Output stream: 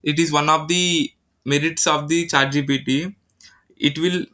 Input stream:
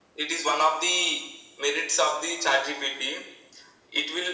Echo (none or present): present